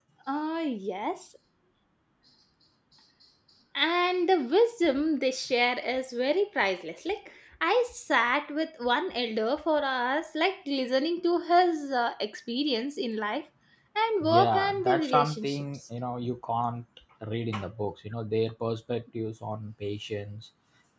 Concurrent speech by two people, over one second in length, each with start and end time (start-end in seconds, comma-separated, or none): 14.2-15.6